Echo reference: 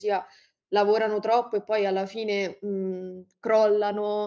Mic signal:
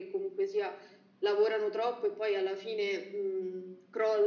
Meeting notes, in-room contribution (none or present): none